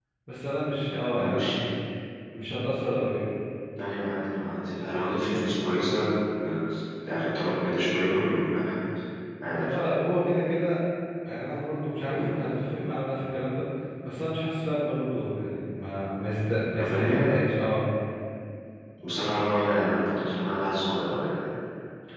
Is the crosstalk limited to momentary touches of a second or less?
Yes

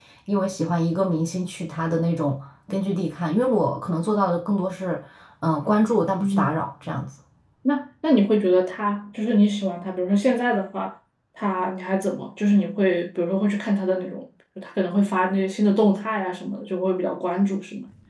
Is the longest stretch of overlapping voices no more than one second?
Yes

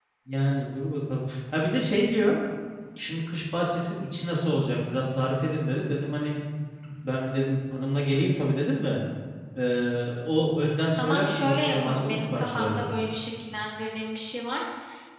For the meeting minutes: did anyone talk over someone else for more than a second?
Yes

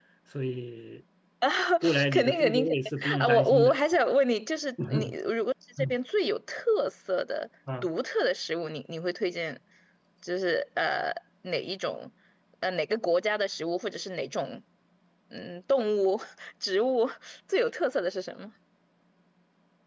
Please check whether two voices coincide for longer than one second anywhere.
Yes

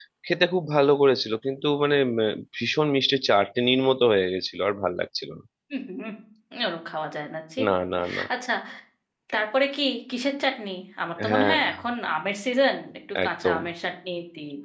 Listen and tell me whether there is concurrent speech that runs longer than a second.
No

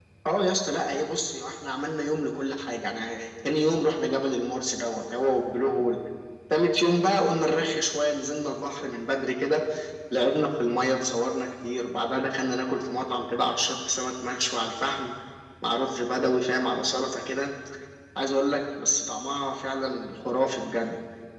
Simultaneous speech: No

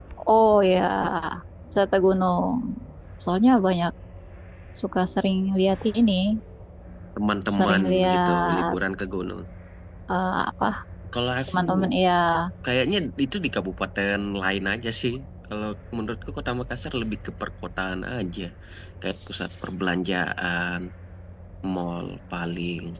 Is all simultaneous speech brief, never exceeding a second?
No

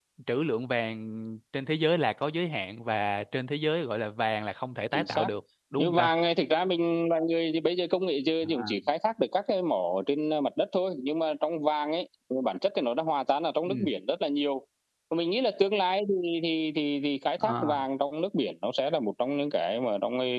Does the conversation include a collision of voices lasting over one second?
No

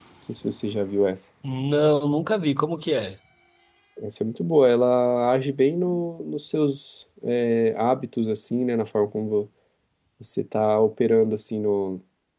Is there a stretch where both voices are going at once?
No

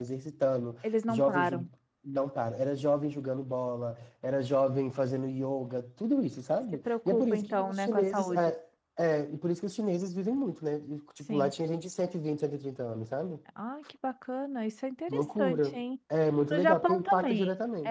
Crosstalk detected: Yes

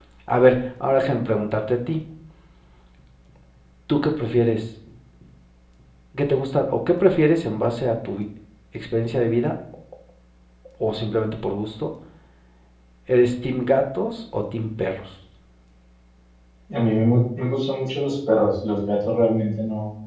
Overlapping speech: No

